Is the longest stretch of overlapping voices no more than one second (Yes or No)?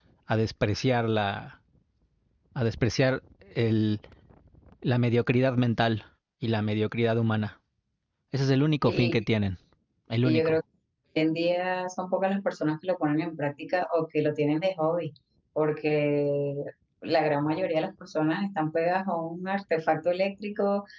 Yes